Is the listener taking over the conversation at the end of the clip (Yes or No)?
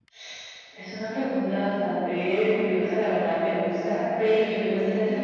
No